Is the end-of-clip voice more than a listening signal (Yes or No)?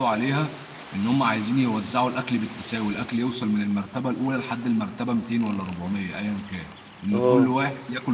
No